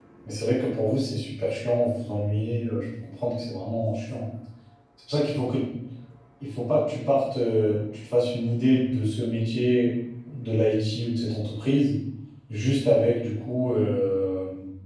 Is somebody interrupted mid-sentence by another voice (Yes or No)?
No